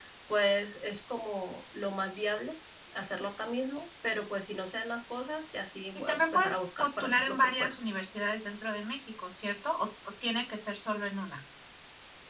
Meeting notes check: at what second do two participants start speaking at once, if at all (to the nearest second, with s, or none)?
6 s